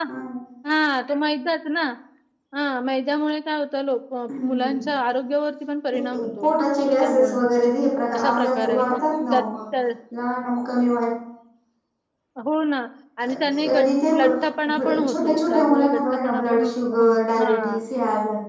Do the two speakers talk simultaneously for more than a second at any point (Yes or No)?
Yes